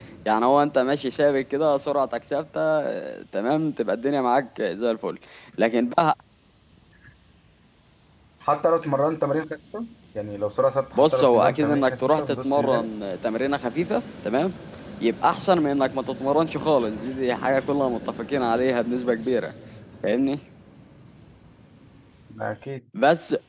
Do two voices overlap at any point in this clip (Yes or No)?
Yes